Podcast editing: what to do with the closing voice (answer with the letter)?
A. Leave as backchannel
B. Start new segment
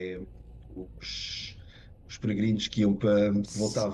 A